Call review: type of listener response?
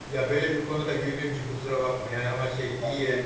listening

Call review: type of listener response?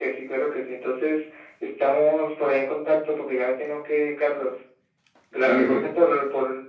listening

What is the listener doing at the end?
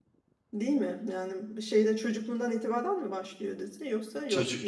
taking over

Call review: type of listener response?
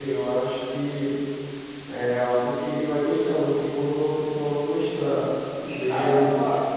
taking over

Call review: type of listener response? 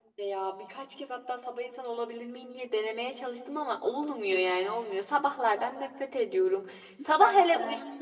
listening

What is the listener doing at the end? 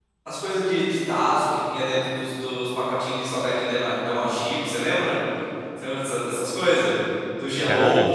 listening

